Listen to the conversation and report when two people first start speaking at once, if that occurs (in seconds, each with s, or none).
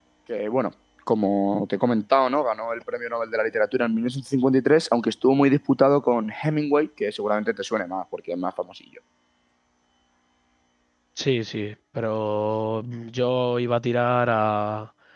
none